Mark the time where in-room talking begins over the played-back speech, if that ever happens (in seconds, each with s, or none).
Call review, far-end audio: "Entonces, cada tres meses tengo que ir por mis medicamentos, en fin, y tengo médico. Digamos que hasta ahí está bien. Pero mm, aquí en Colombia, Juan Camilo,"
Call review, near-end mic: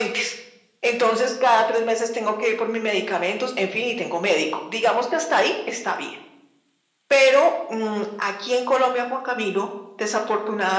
none